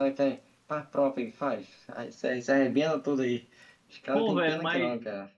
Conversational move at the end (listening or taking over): taking over